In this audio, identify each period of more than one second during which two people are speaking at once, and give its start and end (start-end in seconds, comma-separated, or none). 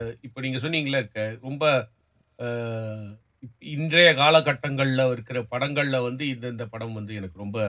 none